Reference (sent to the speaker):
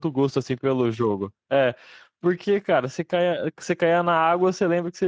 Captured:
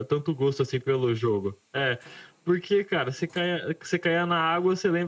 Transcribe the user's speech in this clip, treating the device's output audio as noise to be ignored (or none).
none